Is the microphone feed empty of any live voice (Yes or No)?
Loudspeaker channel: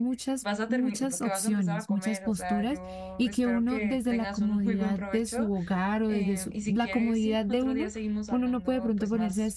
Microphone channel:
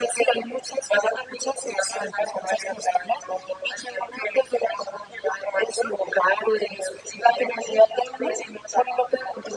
Yes